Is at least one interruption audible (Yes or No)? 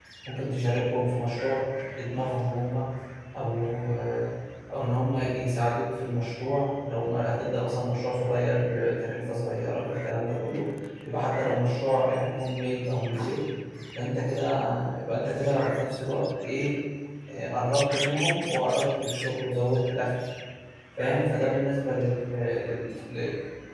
No